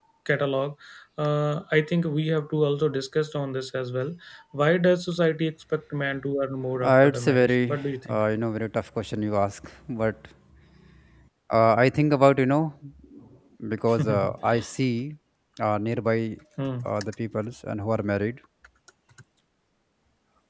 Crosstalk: present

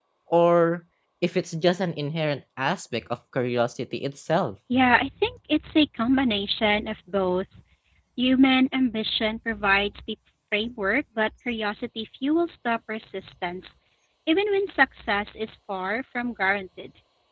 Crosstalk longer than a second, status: none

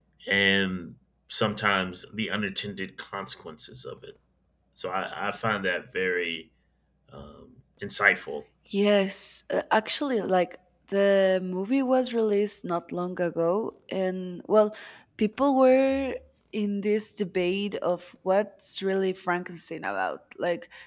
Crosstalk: none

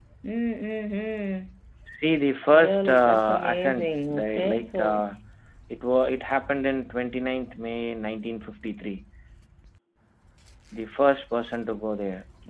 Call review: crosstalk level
present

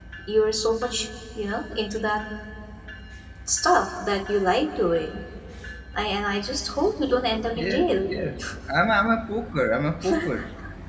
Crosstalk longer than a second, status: none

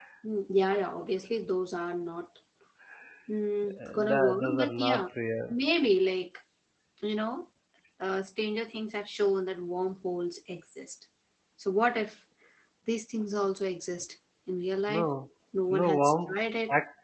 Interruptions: present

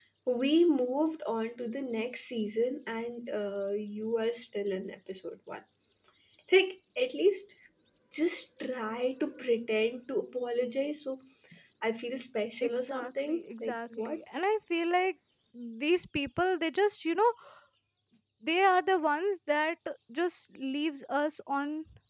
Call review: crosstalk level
present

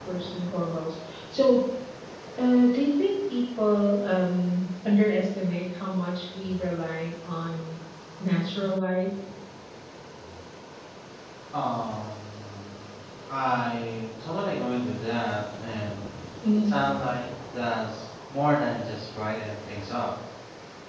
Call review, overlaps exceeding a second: none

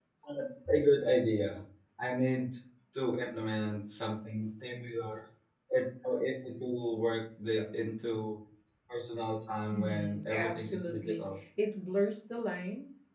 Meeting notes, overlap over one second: present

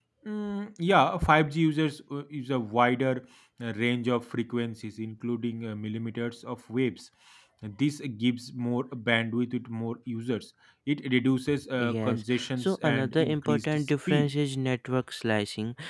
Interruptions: present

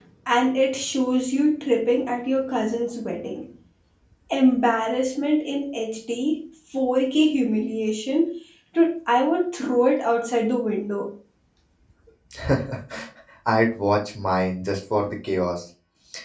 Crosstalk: none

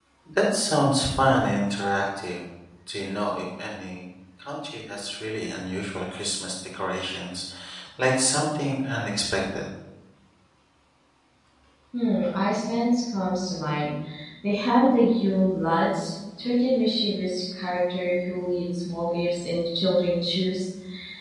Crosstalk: none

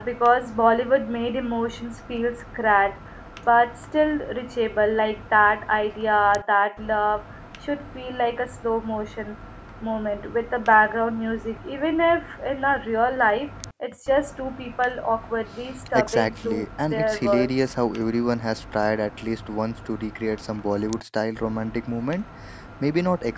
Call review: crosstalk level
present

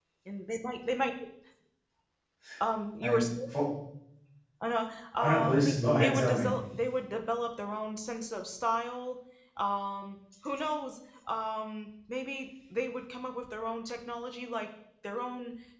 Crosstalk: present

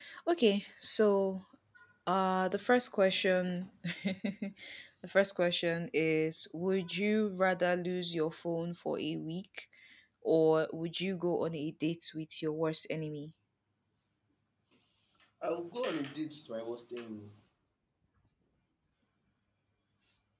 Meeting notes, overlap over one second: none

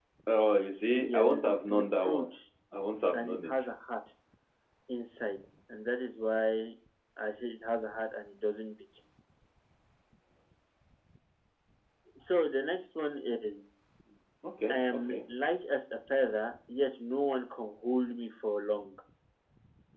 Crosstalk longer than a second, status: present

